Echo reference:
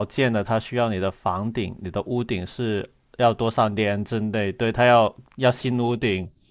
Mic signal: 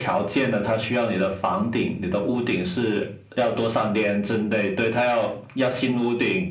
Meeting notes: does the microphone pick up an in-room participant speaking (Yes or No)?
No